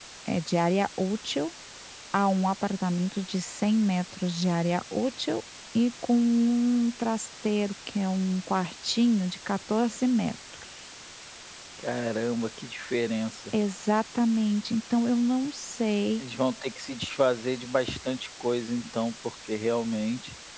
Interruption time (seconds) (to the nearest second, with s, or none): none